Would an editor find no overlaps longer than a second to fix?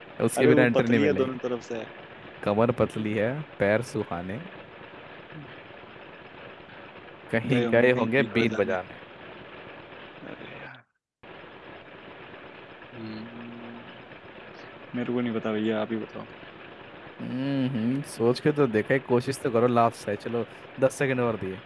No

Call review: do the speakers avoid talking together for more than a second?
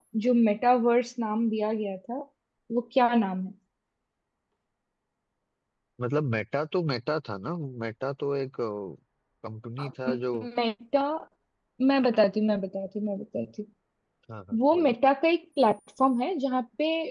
Yes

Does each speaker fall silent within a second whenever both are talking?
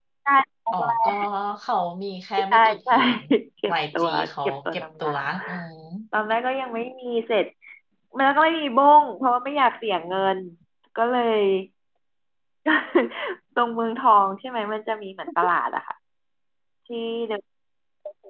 No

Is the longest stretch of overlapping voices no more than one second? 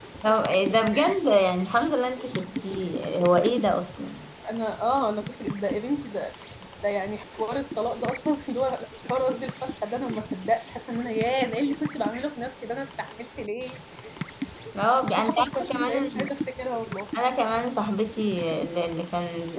No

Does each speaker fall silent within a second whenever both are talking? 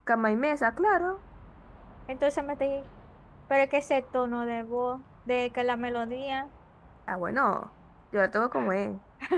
Yes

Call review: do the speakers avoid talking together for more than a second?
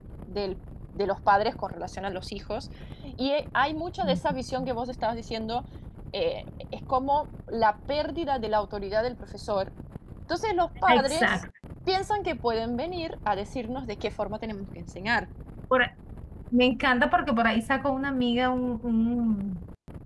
Yes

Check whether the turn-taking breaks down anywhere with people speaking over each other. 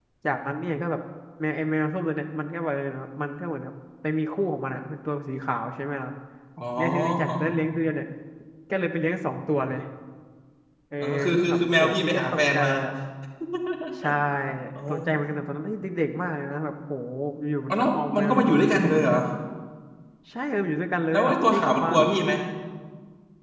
Yes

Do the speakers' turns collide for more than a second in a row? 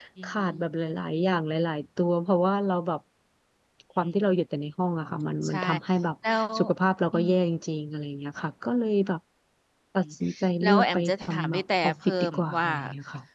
Yes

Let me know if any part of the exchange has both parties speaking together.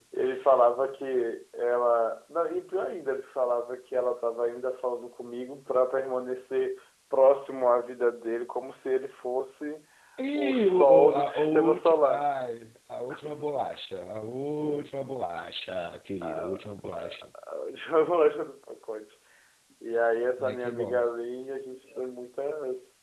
Yes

